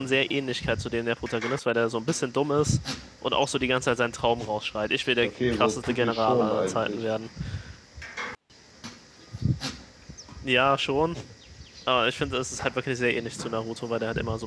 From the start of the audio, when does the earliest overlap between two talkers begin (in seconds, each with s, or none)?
5.2 s